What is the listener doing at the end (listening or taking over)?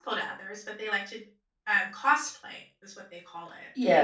taking over